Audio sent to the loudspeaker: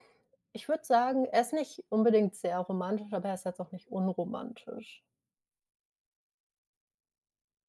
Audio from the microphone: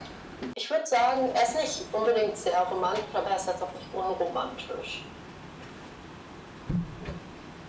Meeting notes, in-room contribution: none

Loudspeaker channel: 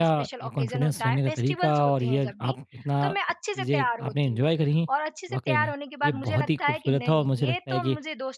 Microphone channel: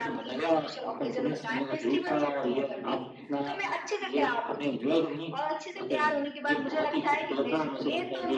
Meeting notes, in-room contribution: none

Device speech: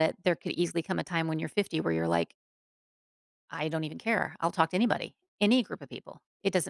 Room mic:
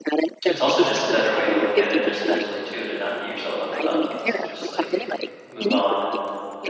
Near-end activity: present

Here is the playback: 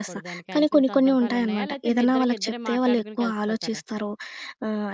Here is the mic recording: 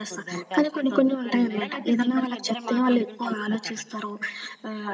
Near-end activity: none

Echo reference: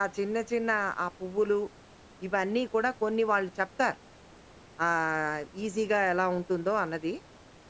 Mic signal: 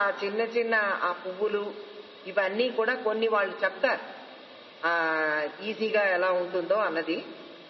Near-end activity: none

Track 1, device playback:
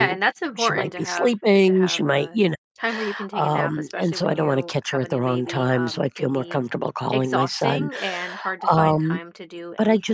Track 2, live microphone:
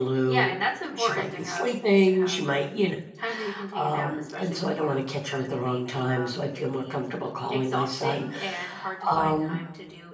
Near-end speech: none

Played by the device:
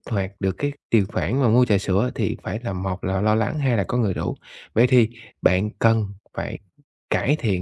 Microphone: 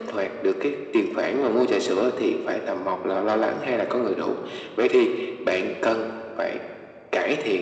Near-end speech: none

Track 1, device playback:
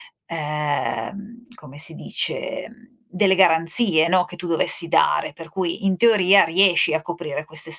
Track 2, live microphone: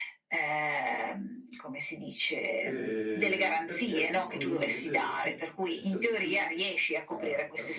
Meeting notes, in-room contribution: present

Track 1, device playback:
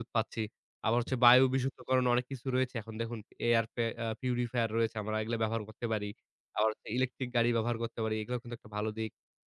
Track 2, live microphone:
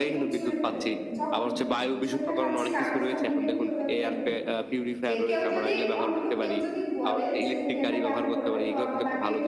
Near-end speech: present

